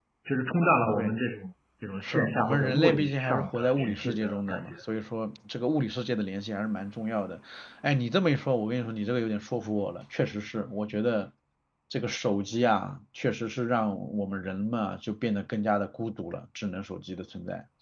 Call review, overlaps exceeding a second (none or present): present